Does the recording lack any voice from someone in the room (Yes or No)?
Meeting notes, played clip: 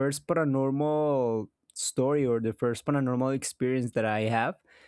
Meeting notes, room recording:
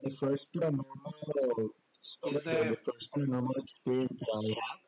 No